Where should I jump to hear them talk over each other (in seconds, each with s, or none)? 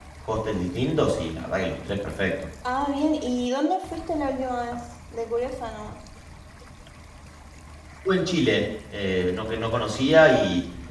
none